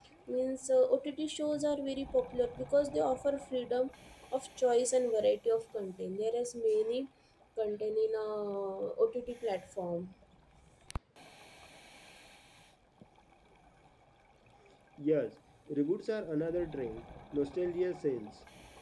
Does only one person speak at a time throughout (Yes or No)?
Yes